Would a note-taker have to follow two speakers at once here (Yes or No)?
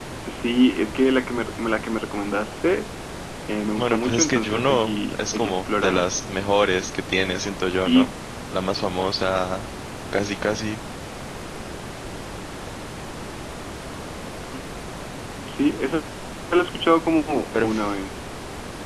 Yes